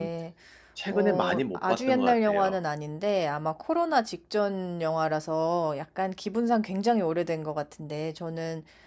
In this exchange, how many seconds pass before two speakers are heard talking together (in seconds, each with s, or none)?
0.9 s